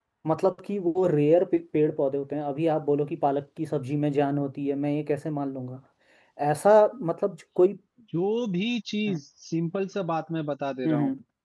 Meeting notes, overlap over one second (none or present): none